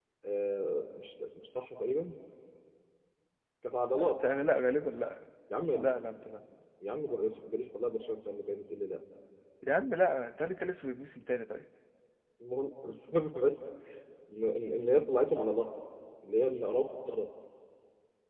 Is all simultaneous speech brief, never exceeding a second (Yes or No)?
Yes